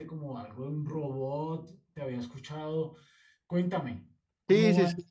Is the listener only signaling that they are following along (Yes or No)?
No